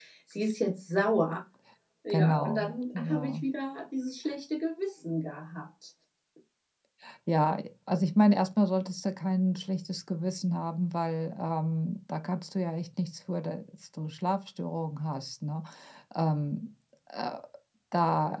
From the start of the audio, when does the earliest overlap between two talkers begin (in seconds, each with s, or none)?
2.1 s